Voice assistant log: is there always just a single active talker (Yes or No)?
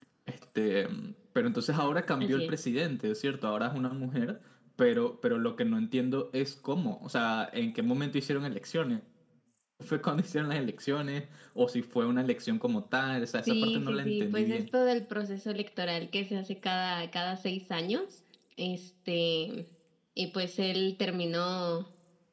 No